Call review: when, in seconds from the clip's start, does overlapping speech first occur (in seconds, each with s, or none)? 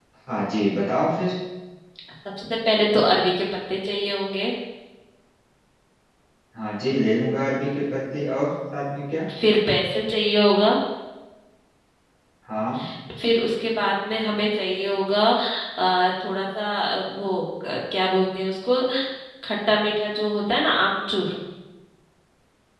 none